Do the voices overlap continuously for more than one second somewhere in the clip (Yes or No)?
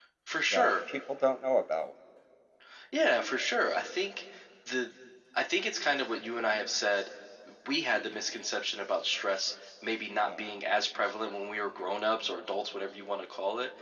No